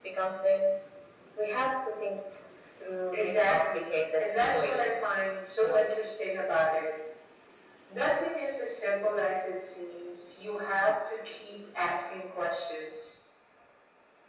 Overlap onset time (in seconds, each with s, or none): 3.1 s